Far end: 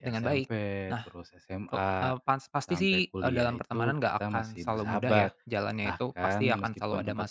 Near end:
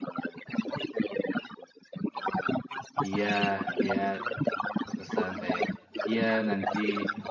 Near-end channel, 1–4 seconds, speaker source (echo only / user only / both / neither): both